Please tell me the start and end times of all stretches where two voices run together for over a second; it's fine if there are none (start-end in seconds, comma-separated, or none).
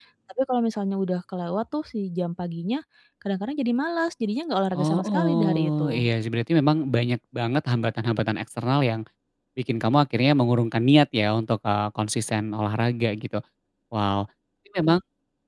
4.8-6.0